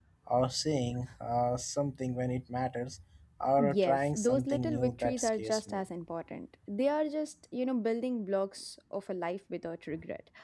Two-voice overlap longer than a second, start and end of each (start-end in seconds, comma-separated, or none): 3.6-5.8